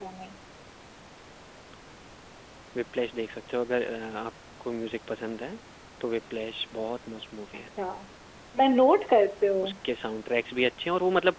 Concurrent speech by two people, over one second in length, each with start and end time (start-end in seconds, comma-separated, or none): none